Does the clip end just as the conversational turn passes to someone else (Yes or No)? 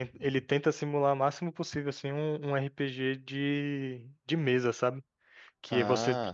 No